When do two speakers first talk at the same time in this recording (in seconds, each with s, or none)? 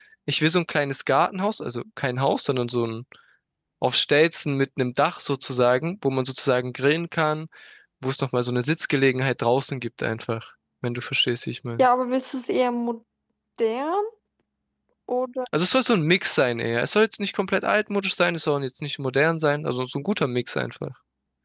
none